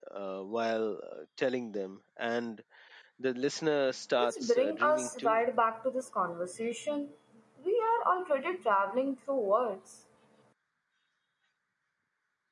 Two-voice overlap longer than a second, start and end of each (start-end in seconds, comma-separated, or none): 4.2-5.4